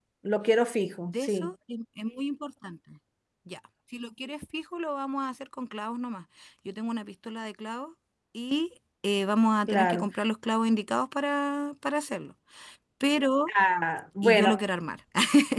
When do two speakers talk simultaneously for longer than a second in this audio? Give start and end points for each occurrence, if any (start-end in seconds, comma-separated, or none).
none